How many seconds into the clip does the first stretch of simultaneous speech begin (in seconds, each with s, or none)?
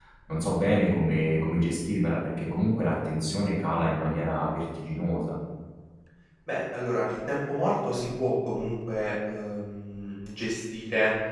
none